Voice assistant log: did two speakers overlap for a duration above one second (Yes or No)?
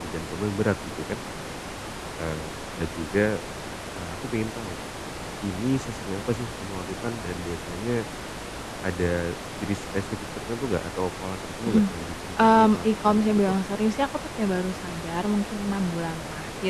Yes